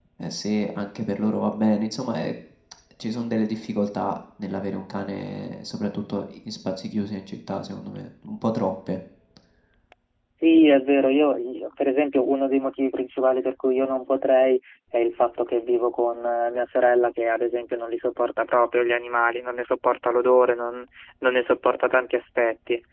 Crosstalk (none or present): none